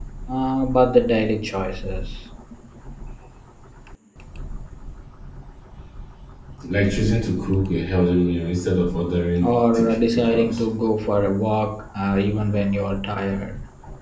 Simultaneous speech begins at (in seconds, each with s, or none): 9.4 s